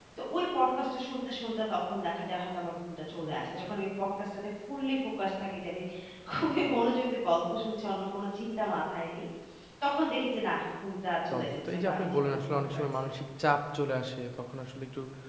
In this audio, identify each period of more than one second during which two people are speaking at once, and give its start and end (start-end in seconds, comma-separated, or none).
11.3-13.1